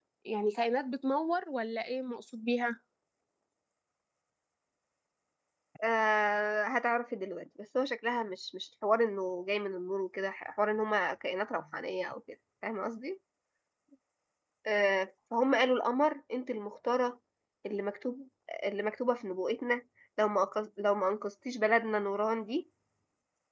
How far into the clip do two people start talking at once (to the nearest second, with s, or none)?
none